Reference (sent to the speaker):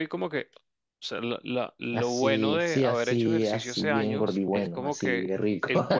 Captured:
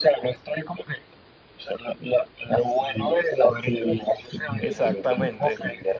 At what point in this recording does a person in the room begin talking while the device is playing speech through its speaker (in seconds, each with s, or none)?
4.6 s